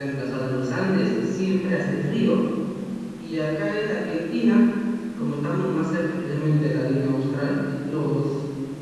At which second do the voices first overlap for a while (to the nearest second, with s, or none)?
none